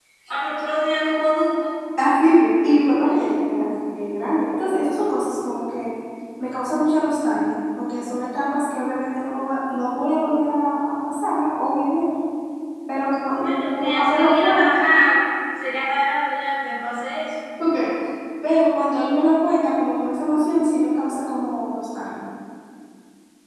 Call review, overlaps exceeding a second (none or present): present